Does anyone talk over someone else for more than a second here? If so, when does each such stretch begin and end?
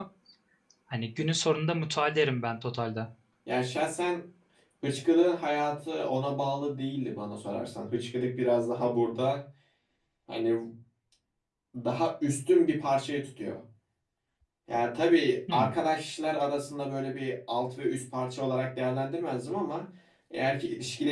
none

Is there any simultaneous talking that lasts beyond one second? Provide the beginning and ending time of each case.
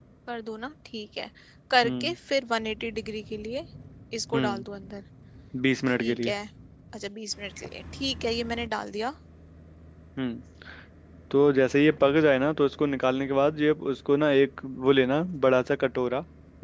none

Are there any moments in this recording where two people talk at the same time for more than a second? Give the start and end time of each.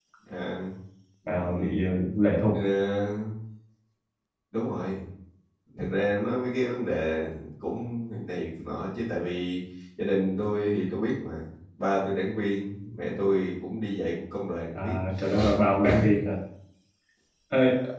none

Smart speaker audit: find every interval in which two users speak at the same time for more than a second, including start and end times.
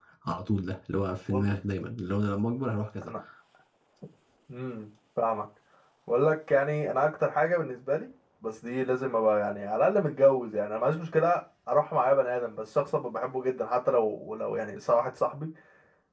none

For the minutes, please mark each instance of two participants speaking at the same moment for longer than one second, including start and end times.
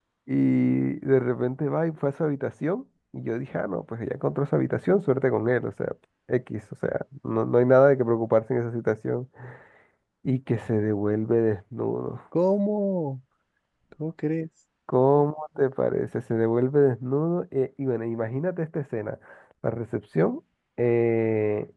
none

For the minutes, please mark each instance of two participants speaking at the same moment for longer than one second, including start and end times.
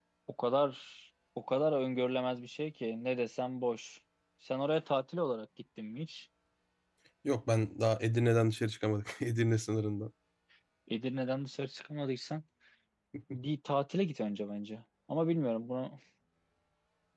none

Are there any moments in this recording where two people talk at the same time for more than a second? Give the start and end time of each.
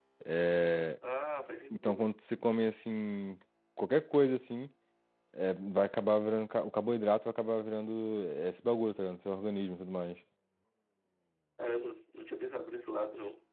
none

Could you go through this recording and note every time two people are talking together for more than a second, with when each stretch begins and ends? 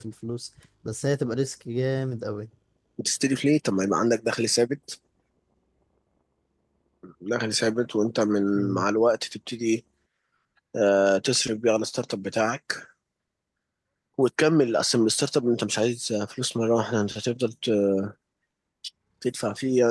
none

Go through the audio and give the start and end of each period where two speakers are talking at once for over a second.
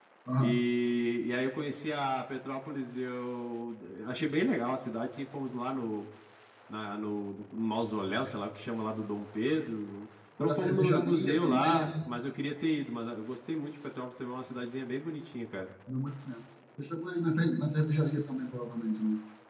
10.4-11.9

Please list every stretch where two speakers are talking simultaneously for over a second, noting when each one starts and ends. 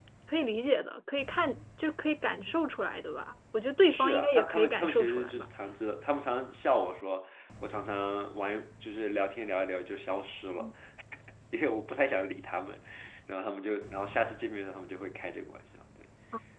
3.9-5.5

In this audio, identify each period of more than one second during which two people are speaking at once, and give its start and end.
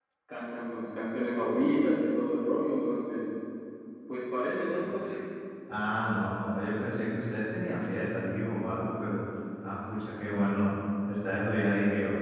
none

